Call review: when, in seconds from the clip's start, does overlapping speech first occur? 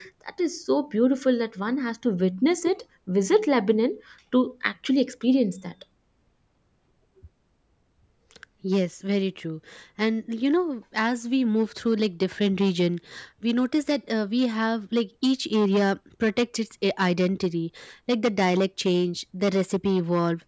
none

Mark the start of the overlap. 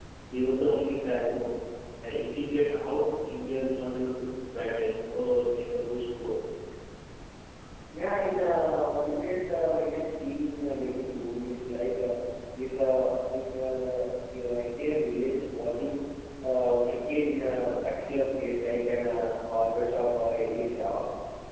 none

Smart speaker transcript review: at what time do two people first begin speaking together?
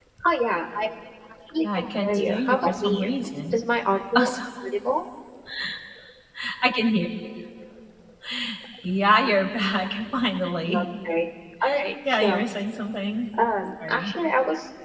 1.7 s

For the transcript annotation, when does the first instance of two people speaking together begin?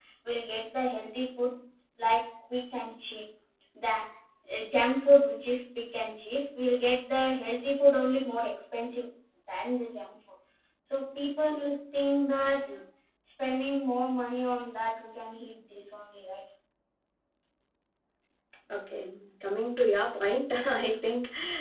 none

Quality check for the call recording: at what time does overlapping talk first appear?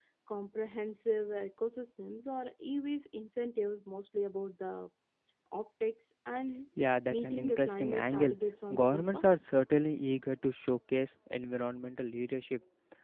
7.1 s

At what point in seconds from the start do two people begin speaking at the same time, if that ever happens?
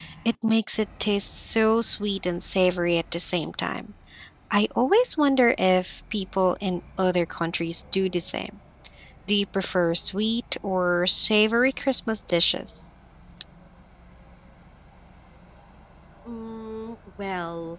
none

